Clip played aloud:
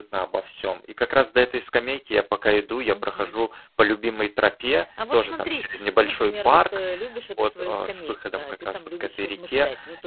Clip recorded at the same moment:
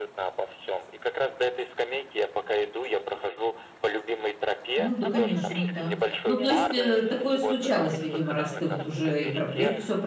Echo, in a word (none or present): present